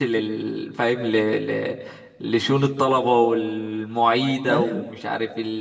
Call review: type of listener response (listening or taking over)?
listening